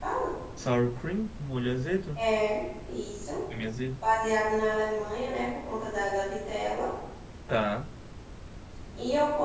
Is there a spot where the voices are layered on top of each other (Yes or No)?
No